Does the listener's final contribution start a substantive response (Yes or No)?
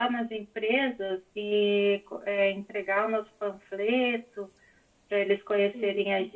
No